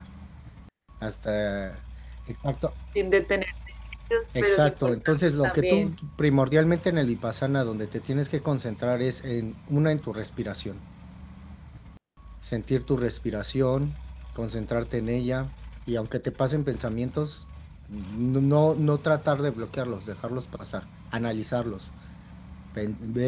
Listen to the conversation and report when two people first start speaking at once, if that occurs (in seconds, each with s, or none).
4.4 s